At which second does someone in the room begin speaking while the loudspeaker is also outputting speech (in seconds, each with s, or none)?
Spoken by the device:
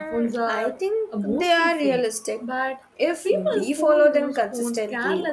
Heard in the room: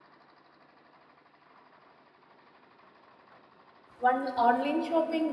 4.0 s